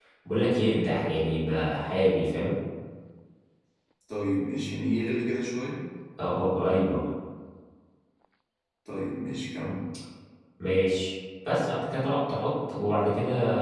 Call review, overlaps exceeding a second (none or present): none